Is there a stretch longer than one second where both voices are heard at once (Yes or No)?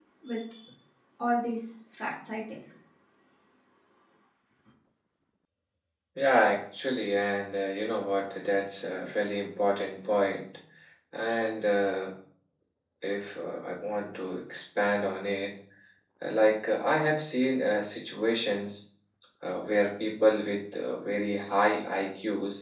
No